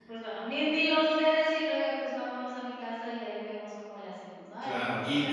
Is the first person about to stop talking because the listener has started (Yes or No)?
Yes